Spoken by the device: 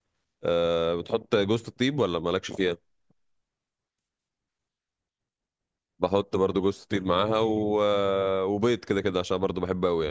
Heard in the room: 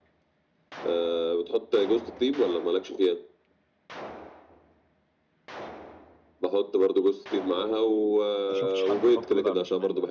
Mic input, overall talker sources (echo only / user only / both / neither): both